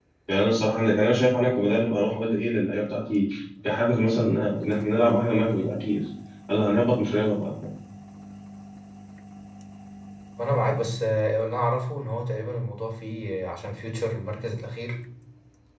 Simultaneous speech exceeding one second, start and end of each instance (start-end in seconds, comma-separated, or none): none